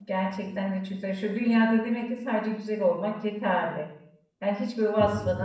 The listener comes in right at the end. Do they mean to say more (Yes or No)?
No